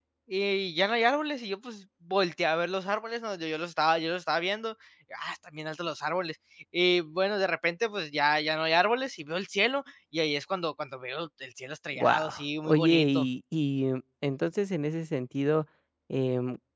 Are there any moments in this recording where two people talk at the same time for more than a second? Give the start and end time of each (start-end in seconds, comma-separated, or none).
11.9-13.3